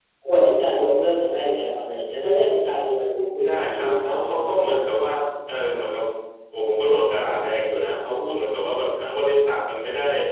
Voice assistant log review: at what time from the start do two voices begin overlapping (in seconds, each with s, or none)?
3.4 s